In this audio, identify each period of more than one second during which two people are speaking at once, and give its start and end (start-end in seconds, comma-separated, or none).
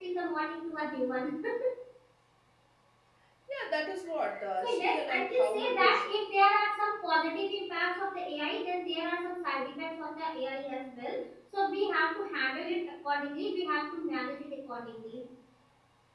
4.6-6.1